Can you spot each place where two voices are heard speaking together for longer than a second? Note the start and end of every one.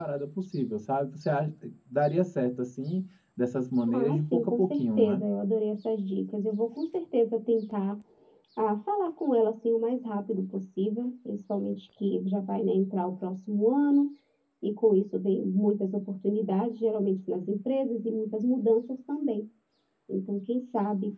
3.9-5.2

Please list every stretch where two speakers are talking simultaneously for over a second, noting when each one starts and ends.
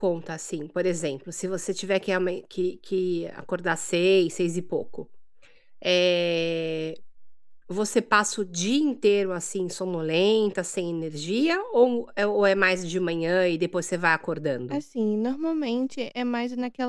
none

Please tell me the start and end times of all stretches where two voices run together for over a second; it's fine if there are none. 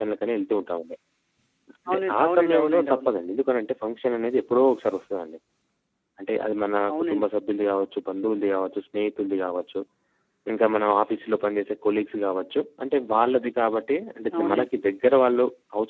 1.9-3.1

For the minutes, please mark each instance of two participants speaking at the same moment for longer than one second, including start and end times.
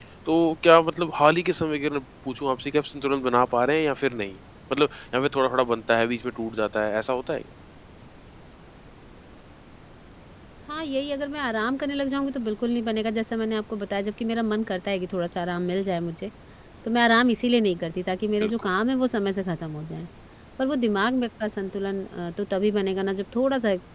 none

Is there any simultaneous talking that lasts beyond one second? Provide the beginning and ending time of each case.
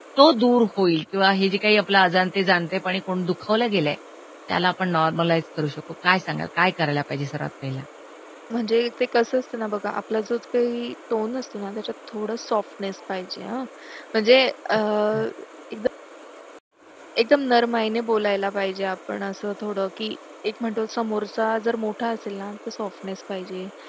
none

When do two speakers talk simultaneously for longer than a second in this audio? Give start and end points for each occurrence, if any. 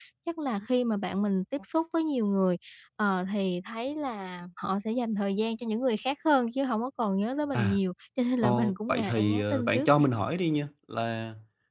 8.4-10.0

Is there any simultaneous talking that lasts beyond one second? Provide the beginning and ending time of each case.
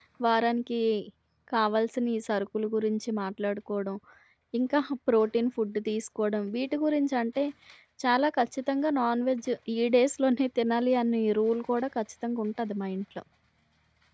none

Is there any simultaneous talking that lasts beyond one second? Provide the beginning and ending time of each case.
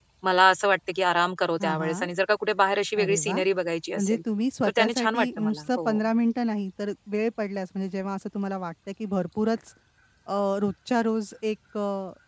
4.6-6.0

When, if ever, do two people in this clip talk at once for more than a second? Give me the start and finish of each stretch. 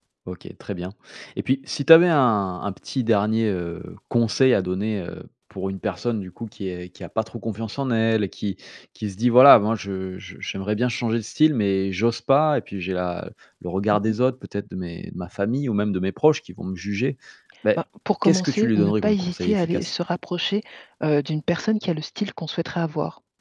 18.2-19.9

